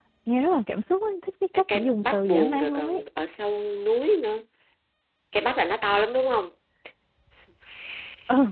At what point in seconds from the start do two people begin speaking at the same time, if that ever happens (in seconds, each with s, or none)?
1.7 s